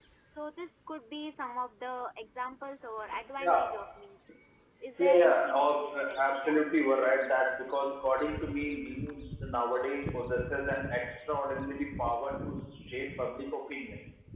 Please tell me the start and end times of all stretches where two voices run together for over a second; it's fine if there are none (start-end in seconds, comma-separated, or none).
5.0-6.6